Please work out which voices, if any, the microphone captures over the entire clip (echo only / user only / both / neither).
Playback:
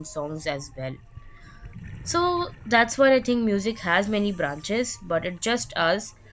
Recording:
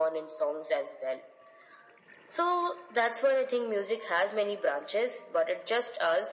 echo only